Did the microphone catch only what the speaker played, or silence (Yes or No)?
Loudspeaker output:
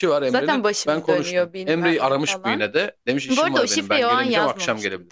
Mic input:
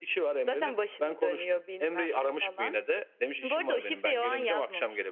Yes